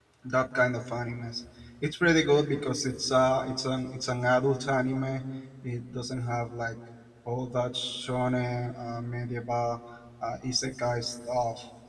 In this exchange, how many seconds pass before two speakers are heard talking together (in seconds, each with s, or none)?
none